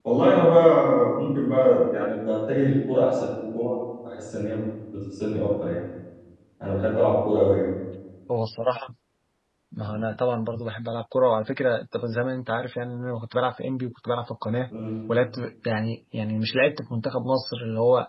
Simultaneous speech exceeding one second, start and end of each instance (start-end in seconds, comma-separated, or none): none